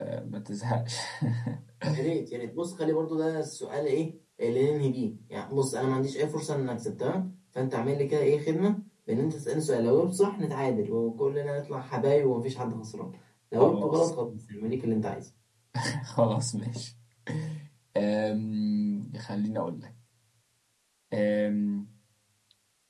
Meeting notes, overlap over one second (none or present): none